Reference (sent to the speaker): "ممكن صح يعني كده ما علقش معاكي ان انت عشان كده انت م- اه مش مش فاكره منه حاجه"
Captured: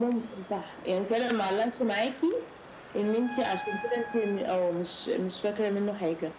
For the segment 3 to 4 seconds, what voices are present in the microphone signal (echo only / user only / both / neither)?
echo only